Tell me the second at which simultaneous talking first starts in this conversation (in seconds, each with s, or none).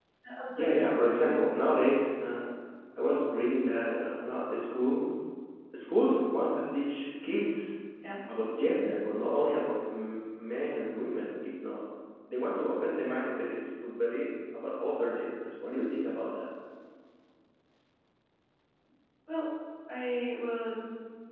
0.6 s